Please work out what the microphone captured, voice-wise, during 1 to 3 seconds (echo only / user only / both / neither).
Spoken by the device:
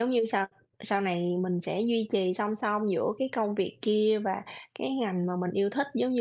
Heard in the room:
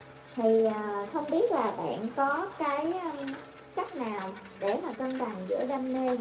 user only